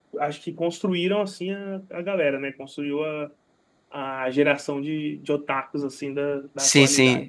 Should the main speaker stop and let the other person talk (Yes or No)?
Yes